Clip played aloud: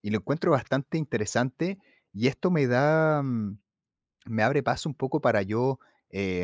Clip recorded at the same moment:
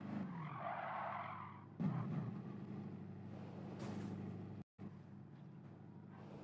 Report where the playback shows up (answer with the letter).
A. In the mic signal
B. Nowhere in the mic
B